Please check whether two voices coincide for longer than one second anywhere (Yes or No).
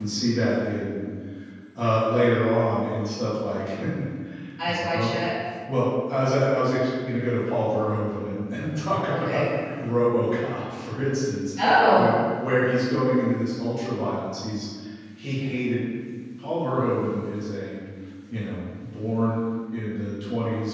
No